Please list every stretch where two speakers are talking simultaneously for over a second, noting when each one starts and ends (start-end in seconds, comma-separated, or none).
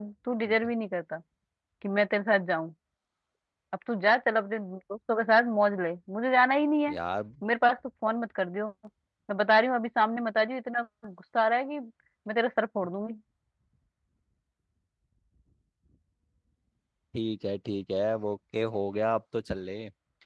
none